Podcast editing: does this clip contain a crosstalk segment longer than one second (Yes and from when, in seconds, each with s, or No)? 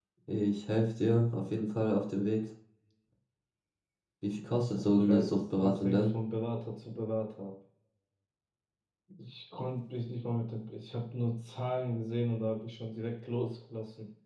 Yes, from 4.9 s